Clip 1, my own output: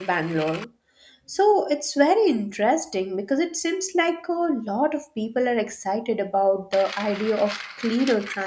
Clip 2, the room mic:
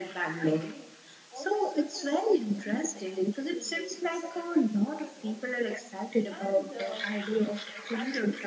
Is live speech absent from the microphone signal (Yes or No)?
No